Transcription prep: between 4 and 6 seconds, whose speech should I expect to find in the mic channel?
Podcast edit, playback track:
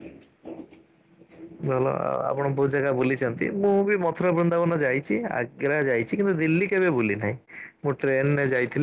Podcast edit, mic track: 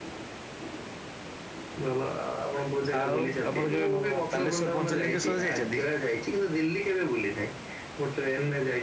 both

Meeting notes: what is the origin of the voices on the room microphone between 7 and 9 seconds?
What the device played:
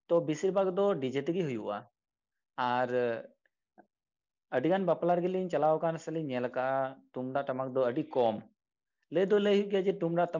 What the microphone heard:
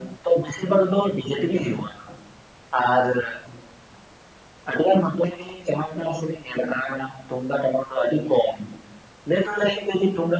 echo only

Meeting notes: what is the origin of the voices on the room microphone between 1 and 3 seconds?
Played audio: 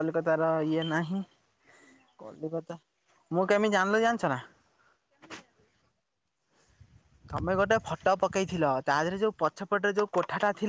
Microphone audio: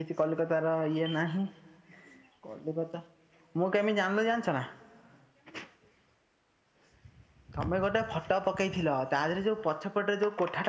echo only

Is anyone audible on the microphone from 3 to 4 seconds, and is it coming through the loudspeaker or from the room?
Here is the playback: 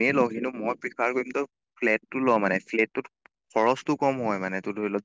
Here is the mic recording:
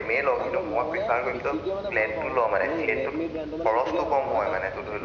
both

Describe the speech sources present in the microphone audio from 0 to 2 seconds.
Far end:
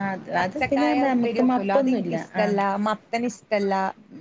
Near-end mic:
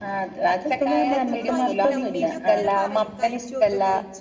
both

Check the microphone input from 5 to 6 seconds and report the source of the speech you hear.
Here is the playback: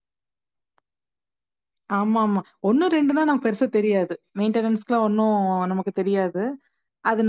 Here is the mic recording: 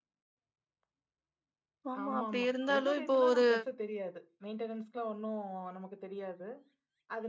echo only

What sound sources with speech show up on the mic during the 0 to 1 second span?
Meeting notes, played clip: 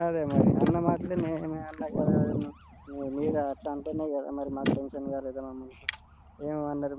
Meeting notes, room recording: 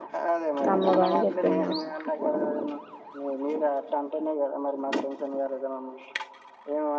both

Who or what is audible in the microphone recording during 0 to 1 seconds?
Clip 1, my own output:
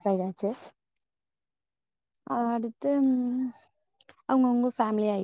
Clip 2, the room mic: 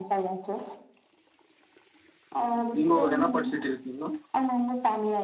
echo only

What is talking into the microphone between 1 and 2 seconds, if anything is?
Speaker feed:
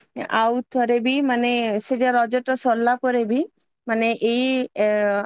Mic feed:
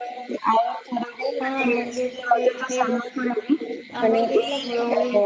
both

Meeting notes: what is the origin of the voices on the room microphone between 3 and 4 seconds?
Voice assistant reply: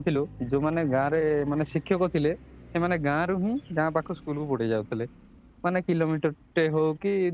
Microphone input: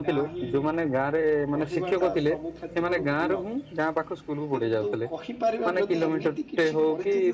both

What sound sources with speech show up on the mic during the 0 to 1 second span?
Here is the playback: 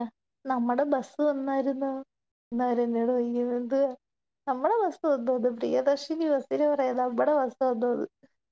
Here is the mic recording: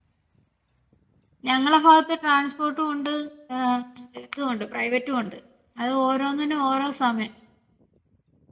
neither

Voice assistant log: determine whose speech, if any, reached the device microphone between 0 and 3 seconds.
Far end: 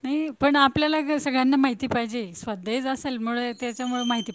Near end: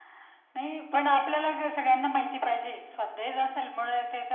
echo only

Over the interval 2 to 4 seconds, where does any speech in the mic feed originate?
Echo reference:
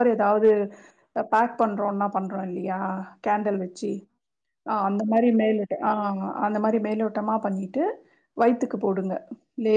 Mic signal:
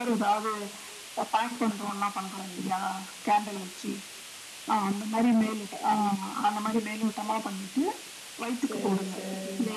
echo only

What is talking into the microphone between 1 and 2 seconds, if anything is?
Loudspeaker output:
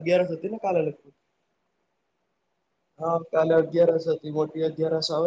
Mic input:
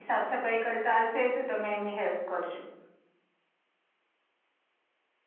user only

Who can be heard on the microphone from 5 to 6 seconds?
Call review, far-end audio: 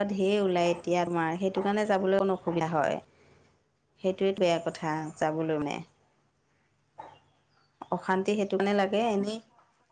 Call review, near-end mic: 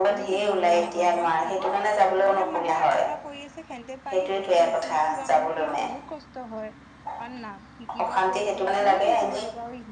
both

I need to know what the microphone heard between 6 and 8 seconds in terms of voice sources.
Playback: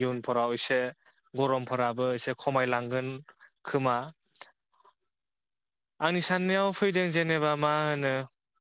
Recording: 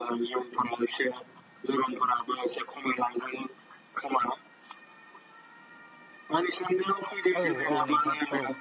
both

